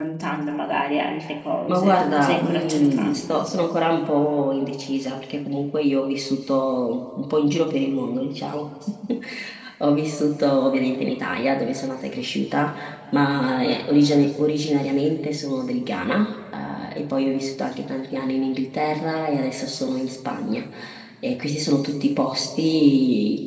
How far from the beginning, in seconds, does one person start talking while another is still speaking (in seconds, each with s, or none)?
1.7 s